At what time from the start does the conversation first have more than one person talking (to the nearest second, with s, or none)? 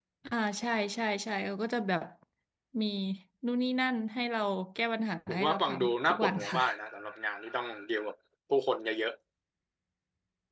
5 s